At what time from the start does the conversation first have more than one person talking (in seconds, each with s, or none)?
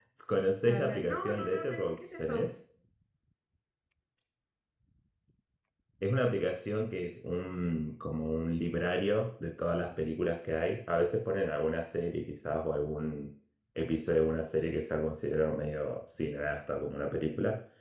0.7 s